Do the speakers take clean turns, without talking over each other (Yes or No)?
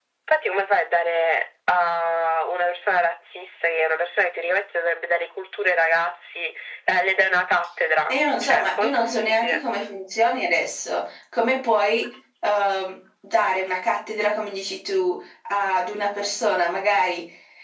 No